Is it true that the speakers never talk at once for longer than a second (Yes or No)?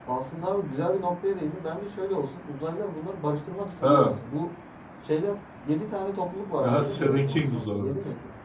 No